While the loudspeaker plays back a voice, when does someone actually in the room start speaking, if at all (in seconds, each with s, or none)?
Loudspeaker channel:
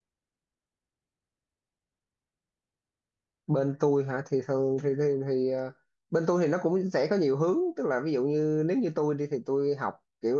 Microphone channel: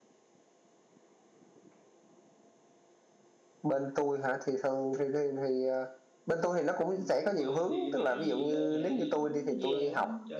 6.9 s